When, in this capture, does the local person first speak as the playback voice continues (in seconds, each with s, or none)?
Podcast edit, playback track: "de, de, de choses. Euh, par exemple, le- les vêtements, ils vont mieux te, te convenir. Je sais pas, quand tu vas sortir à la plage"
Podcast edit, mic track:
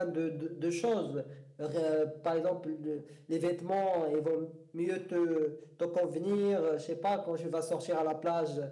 none